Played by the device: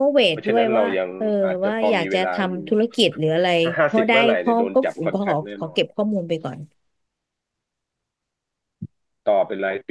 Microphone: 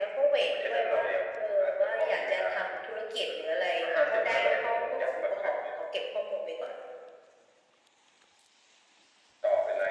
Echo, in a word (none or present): present